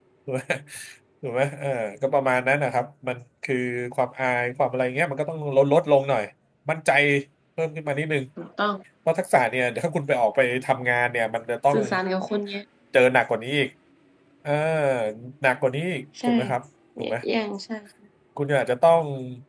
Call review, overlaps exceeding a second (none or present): none